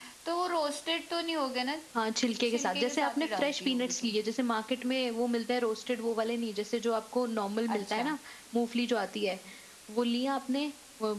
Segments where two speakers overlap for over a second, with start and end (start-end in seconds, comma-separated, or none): 2.5-3.9